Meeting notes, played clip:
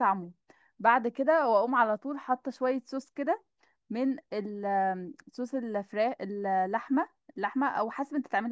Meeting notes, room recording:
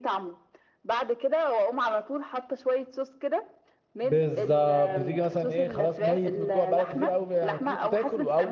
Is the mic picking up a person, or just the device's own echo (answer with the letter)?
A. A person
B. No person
A